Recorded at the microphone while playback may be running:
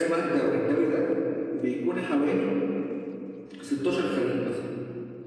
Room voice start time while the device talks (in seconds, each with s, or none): none